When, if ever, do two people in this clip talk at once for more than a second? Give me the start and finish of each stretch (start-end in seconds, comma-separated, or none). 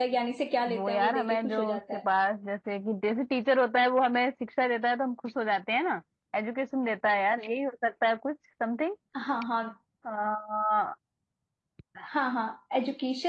0.7-2.0